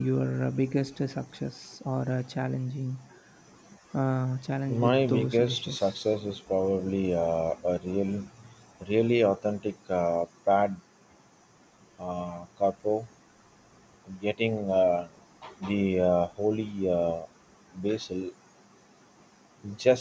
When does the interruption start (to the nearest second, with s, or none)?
5 s